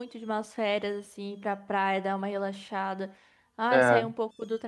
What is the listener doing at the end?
listening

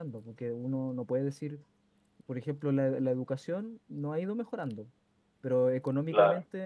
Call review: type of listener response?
listening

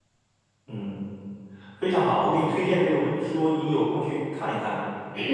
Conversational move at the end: taking over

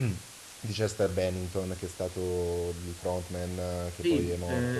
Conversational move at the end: taking over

